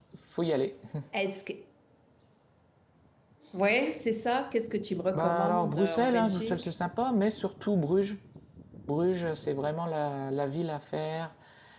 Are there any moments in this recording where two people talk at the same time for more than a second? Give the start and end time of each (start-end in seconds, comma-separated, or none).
5.1-6.7